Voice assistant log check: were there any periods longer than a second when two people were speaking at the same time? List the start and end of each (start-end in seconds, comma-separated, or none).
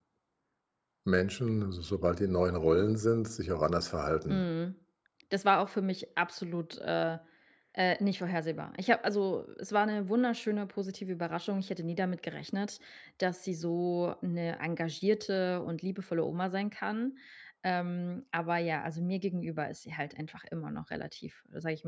none